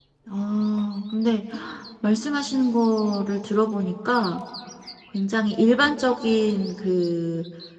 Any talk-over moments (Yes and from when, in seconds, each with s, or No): No